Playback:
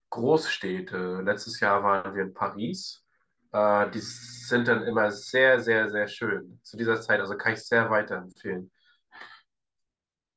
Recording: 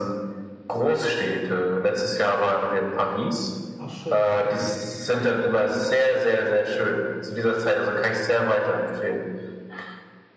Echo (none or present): present